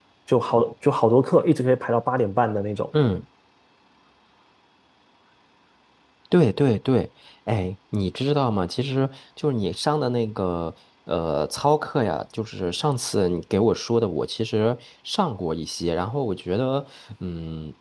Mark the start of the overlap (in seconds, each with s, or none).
none